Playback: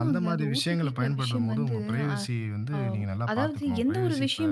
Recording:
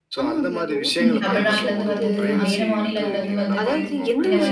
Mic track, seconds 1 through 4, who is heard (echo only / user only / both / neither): both